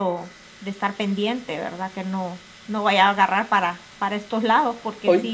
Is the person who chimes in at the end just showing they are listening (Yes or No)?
No